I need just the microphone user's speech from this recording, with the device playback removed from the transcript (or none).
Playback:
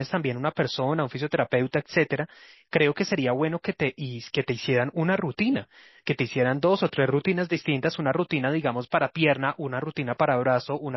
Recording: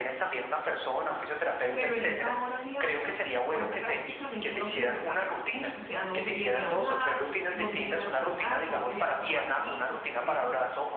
pero en esa hora diaria, pues prácticamente no se descansa. O sea, no se viene a hablar, no se viene a charlar, no se viene a tomar tinto. Bueno, a ver,